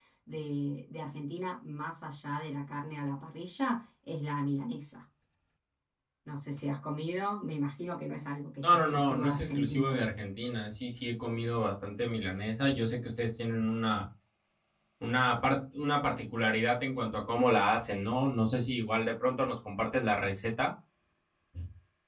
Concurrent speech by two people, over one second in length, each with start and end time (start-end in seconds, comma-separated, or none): 8.6-10.0